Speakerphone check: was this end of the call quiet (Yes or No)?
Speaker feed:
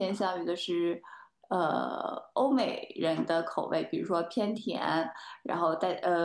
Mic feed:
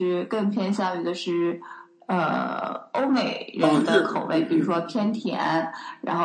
No